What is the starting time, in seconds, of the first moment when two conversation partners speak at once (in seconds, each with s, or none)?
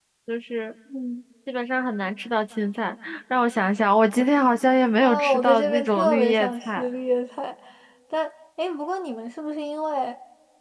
5.0 s